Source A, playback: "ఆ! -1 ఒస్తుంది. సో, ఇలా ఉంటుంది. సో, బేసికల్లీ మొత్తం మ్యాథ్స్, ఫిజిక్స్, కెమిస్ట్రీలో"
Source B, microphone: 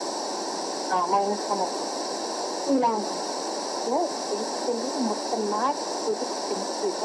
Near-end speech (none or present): none